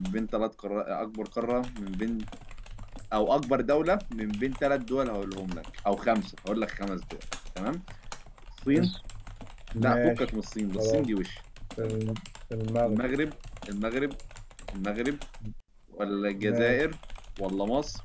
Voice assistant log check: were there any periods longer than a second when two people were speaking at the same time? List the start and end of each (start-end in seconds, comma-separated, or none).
none